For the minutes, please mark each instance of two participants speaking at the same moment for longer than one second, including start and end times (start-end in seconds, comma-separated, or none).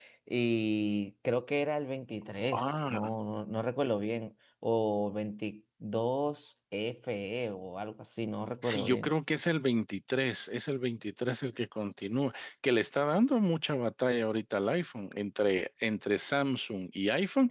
none